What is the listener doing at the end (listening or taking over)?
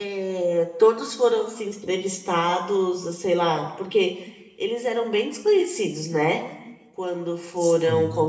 listening